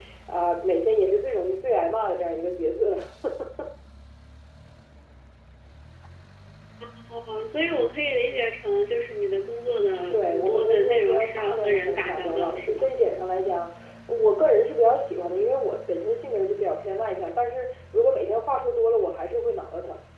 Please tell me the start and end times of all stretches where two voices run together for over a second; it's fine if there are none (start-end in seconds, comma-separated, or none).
10.1-12.9